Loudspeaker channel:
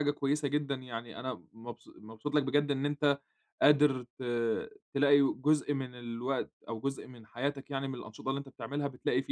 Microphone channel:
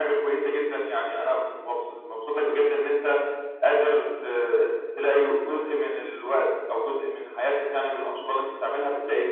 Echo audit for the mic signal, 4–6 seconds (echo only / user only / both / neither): echo only